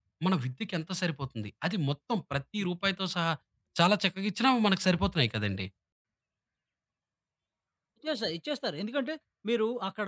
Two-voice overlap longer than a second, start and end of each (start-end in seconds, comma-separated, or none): none